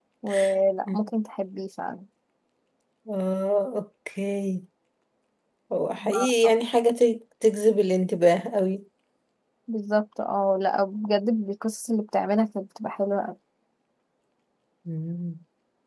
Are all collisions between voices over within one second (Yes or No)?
Yes